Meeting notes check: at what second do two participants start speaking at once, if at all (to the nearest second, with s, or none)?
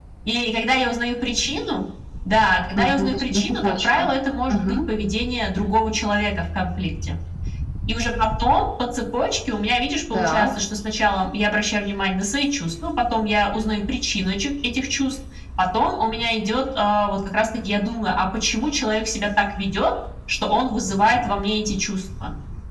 3 s